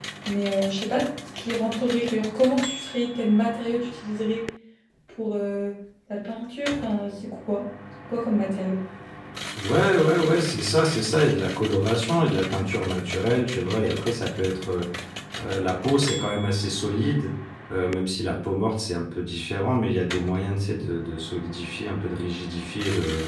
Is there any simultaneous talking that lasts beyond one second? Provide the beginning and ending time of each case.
none

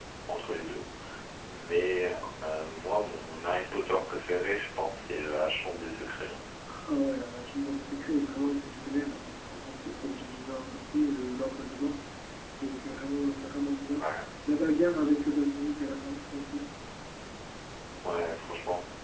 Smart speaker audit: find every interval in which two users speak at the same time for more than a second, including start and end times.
none

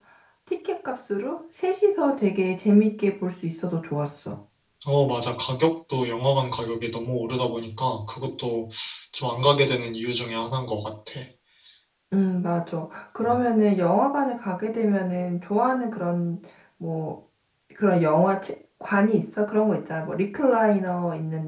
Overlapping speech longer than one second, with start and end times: none

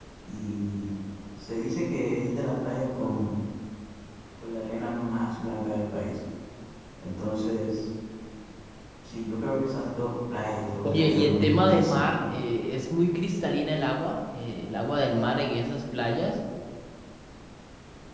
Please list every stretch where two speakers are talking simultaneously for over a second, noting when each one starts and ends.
10.8-12.1

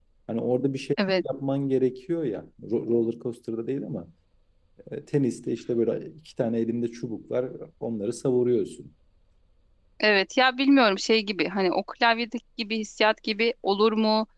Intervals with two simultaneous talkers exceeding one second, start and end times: none

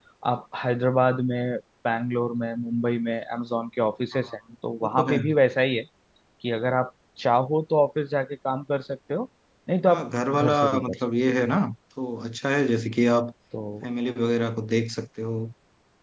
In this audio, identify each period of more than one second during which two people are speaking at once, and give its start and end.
9.9-11.1

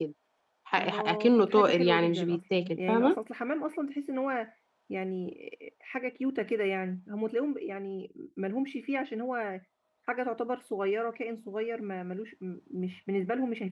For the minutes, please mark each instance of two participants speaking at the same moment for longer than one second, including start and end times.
0.8-3.2

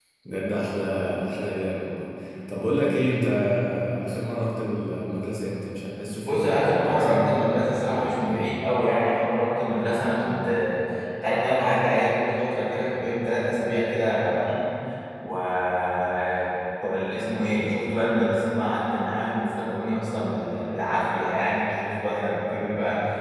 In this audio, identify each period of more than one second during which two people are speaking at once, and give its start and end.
6.2-8.5

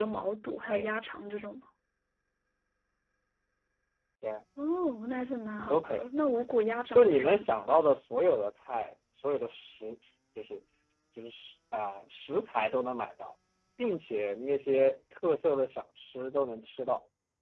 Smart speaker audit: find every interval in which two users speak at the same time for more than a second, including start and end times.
none

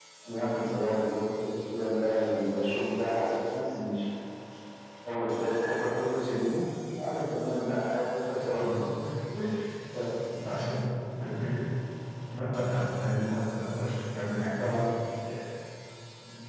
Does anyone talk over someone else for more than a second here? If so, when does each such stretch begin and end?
none

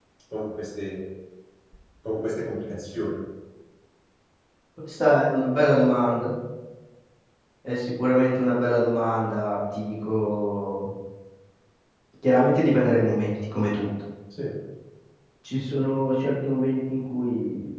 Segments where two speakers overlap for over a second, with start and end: none

